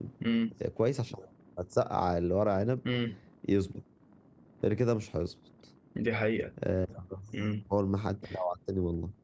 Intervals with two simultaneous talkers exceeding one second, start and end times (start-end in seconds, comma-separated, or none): none